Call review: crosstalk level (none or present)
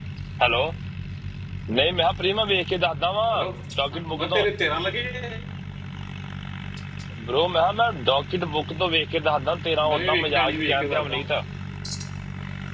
present